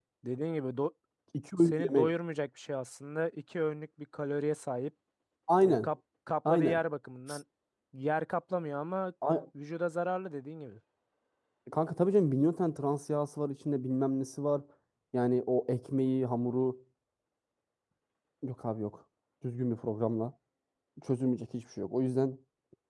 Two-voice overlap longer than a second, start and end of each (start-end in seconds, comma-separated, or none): none